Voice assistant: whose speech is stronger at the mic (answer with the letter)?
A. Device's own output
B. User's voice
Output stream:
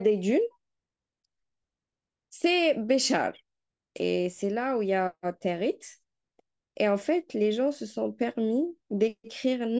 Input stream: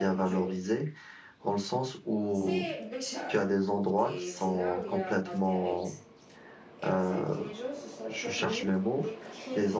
B